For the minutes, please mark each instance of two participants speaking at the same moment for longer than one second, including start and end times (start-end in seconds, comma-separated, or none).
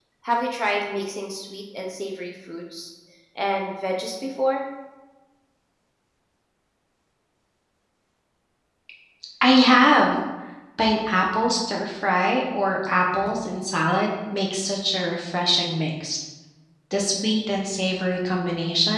none